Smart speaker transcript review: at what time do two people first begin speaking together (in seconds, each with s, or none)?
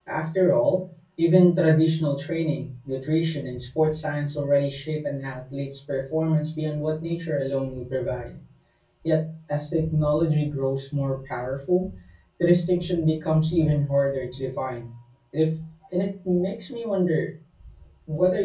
none